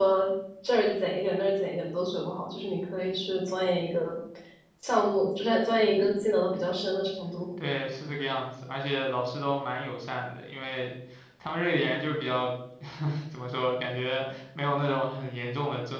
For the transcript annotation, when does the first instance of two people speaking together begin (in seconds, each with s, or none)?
none